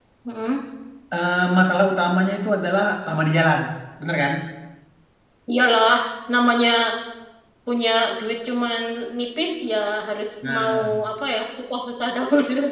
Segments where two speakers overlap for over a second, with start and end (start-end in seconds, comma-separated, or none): none